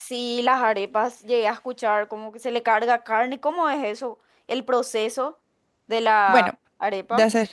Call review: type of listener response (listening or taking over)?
taking over